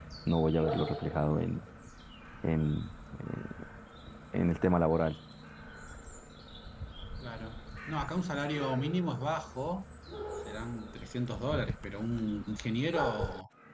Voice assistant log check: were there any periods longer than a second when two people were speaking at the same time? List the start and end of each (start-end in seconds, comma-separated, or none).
none